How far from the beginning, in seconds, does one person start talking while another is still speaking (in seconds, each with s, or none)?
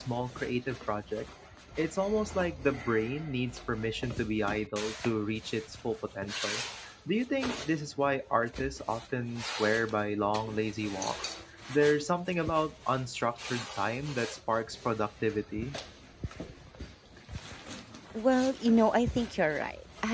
none